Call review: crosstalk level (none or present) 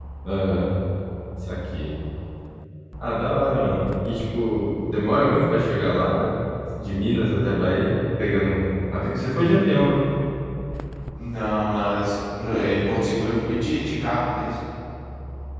none